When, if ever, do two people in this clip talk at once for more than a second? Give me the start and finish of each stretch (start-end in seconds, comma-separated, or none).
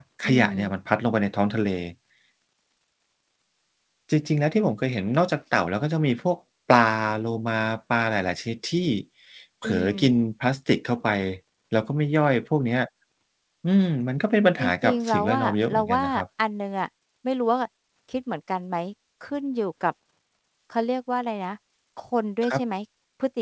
14.6-16.0